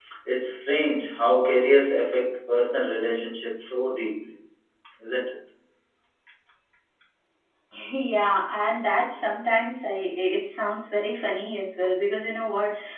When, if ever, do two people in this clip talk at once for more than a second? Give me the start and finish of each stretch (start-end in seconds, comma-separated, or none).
none